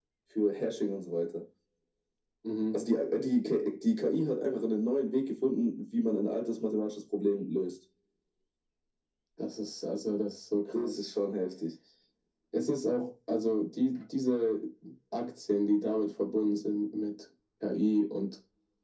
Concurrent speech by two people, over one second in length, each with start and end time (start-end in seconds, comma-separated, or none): none